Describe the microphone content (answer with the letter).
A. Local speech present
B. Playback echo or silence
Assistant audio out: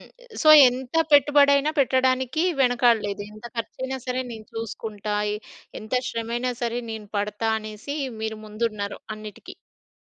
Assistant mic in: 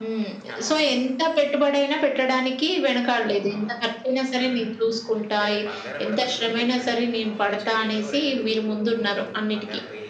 A